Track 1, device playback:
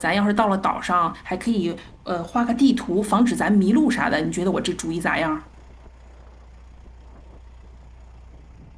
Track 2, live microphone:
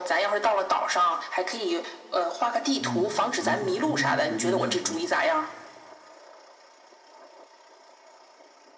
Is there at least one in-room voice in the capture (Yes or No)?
Yes